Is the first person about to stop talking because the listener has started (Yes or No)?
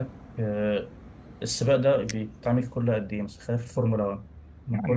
Yes